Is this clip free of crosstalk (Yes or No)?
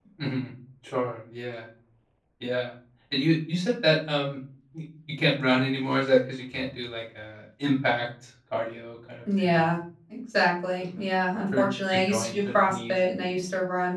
No